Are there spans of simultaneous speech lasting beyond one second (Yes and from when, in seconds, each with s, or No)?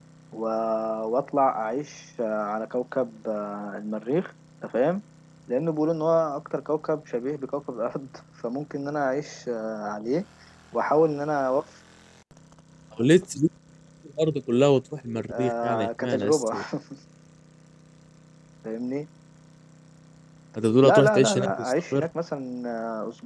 Yes, from 15.3 s